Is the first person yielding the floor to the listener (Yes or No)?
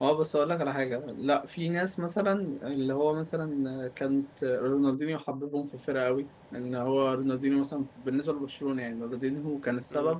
No